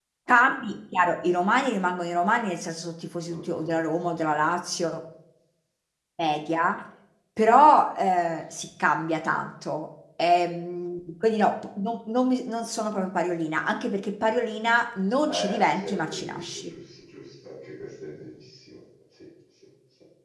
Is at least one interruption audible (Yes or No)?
Yes